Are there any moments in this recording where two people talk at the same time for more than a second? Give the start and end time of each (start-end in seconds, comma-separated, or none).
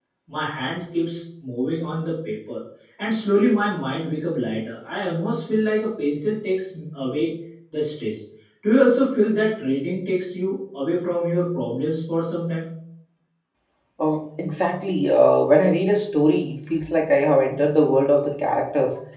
none